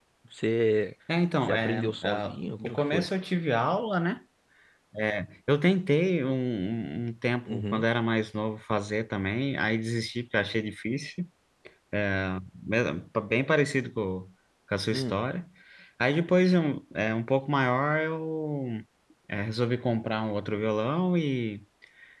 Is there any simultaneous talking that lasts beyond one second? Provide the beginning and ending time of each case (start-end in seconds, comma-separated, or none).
1.5-3.1